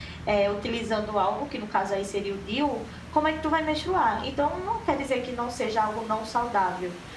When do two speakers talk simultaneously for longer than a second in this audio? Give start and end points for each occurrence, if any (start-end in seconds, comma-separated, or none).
none